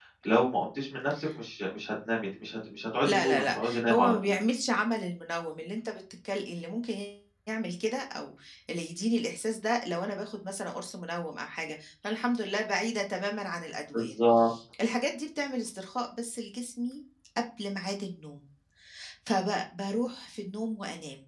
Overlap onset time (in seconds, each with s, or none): 3.0 s